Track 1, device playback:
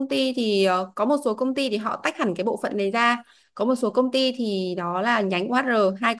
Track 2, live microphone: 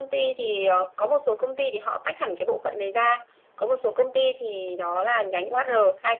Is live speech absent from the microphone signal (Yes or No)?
Yes